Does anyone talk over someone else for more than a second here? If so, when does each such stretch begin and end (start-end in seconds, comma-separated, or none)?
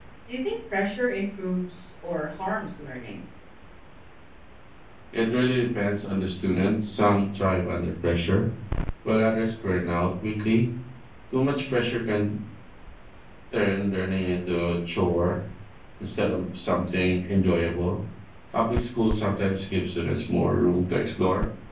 none